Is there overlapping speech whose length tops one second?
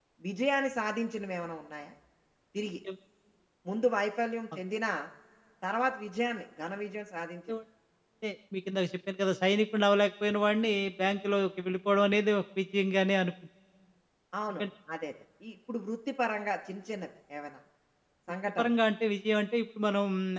No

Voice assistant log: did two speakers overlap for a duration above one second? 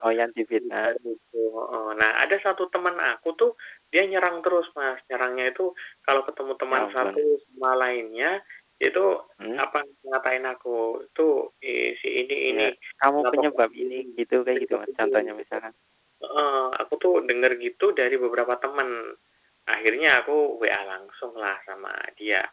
Yes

